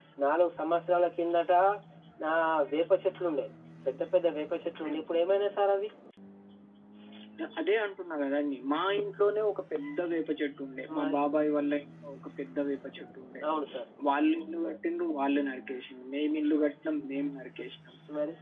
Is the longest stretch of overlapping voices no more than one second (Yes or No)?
Yes